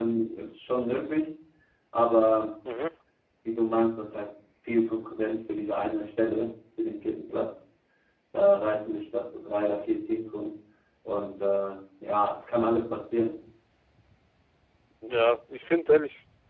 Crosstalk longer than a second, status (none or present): none